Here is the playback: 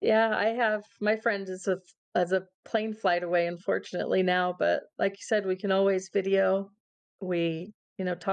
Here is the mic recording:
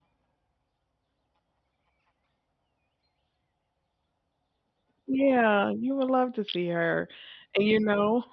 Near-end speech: present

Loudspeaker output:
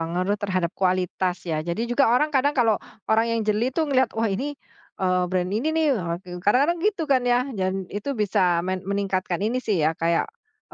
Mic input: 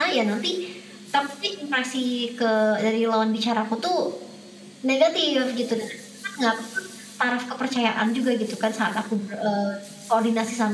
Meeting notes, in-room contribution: present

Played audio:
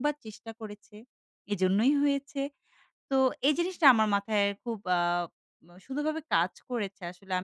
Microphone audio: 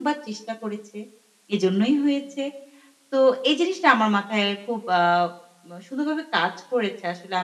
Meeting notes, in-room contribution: none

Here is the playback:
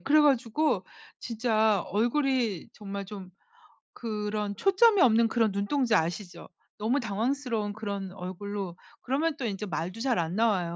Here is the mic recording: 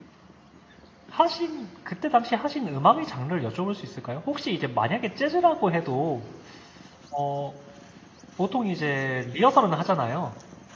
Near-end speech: present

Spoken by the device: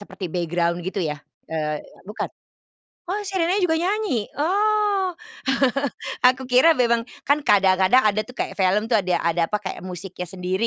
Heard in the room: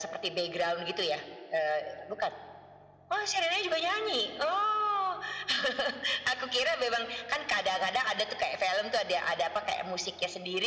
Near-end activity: none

